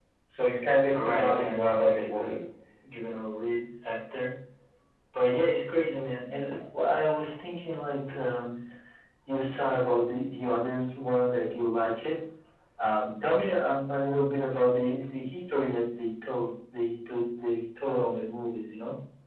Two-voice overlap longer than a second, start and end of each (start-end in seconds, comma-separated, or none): 0.9-2.4